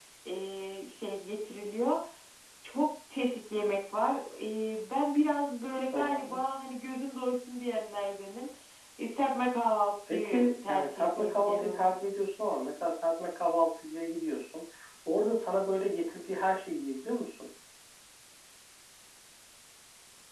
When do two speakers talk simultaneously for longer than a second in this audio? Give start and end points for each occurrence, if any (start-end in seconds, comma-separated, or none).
10.1-11.8